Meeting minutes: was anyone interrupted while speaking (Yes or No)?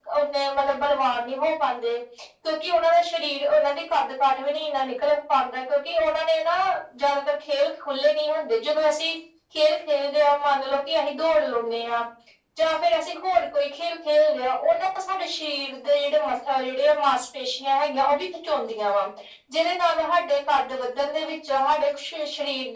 No